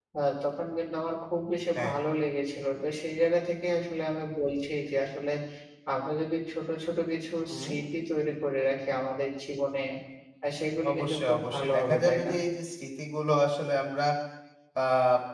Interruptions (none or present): present